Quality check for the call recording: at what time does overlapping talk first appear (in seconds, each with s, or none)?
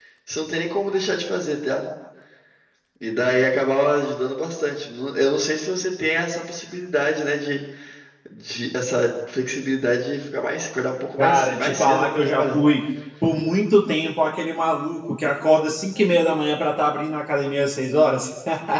11.2 s